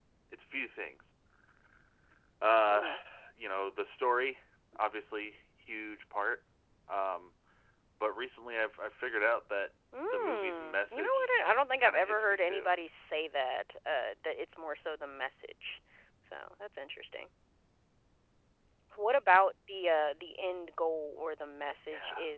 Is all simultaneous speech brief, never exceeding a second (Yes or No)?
No